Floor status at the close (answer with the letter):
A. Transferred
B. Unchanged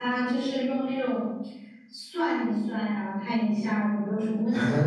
A